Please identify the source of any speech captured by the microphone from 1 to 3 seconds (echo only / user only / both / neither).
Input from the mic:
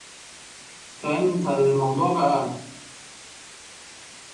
user only